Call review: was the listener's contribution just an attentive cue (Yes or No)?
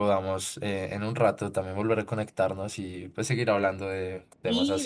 No